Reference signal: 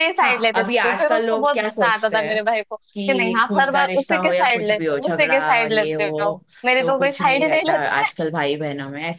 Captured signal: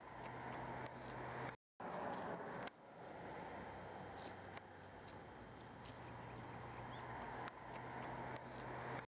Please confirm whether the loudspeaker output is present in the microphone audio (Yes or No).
No